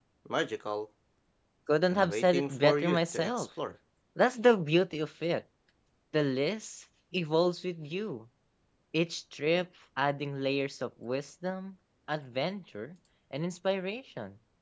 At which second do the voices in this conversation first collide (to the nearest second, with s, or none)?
2 s